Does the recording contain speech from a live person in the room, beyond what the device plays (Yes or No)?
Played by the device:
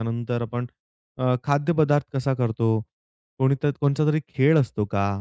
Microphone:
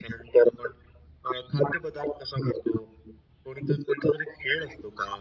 No